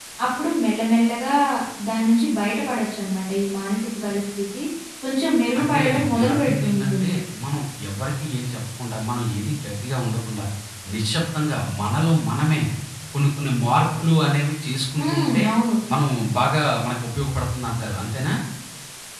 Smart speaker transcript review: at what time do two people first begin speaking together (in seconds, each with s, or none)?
5.6 s